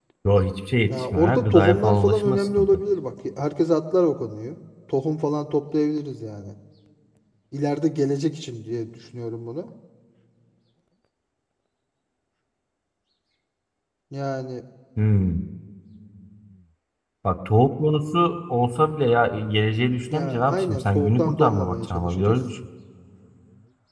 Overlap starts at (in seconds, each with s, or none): 0.9 s